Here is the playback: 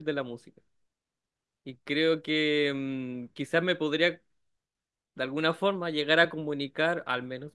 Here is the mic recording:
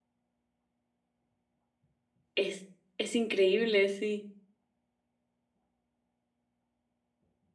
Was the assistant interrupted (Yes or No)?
Yes